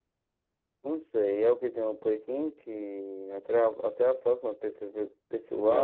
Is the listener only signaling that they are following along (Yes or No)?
No